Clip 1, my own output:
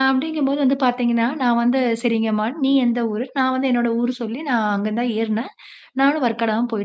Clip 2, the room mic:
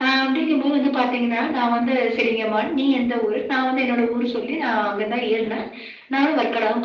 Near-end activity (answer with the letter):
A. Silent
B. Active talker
A